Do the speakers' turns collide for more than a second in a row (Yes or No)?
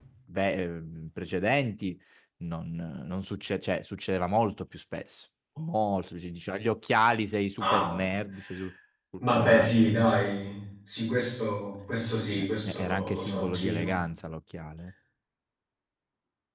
Yes